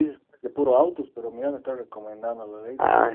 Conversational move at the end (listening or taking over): taking over